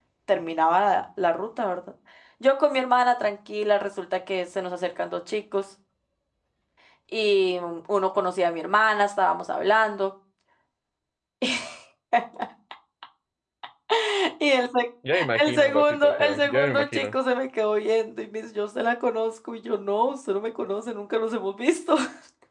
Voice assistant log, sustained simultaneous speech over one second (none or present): present